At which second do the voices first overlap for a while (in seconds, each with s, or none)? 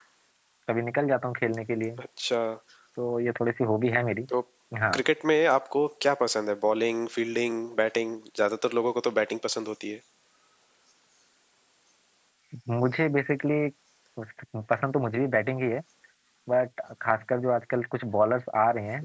none